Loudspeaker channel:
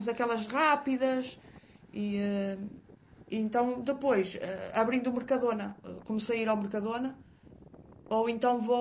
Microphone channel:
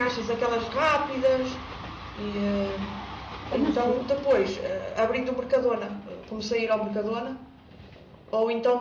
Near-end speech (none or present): present